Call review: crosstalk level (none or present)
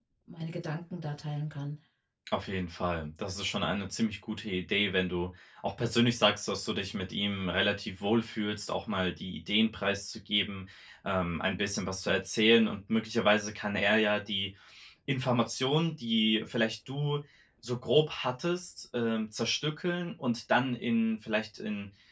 none